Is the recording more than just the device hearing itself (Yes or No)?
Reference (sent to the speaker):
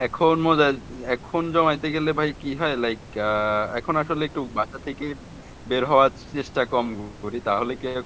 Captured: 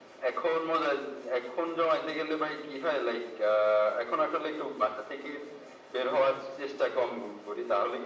No